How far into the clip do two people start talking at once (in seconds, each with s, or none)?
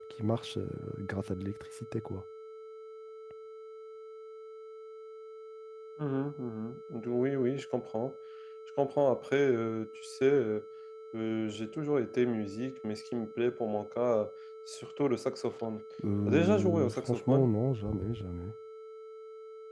16.3 s